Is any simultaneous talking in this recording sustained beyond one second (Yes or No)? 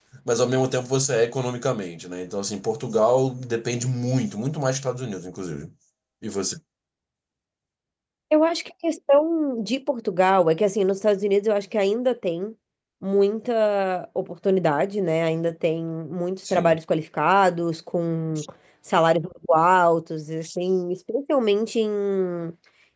No